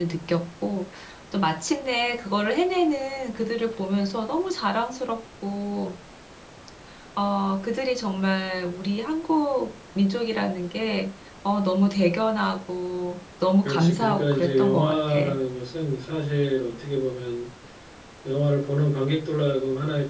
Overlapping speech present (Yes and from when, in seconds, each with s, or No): Yes, from 13.6 s